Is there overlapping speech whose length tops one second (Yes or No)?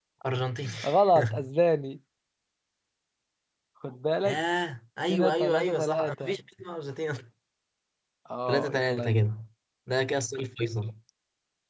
Yes